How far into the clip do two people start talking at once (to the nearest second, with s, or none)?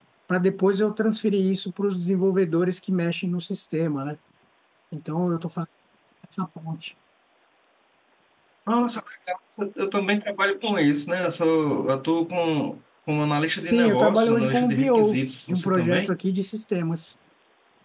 14 s